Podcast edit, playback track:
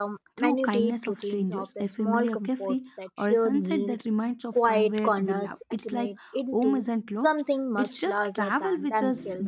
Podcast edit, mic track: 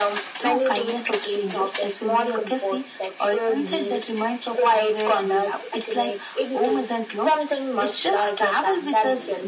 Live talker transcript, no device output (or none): none